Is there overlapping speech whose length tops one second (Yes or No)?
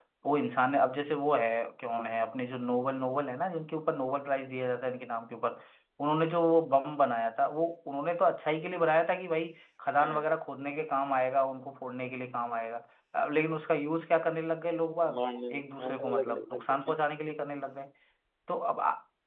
Yes